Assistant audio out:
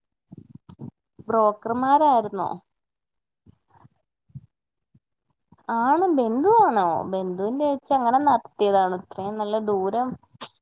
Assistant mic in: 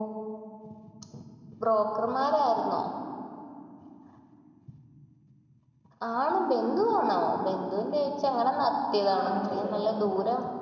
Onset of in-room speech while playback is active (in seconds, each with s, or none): 9.1 s